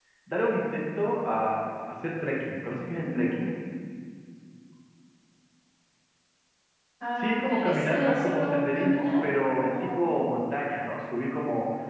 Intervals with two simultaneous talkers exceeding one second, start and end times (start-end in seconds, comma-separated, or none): 7.2-9.1